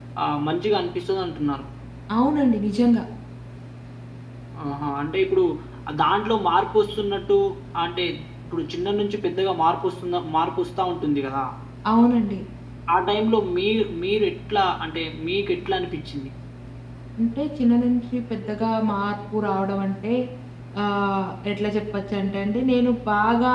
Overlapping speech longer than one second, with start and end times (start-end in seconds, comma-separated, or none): none